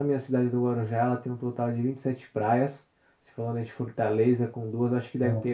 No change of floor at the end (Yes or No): Yes